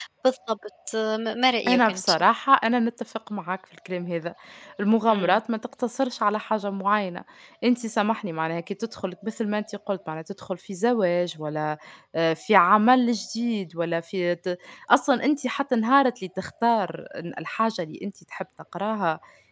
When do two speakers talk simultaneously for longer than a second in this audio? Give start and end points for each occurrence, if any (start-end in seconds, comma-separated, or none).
none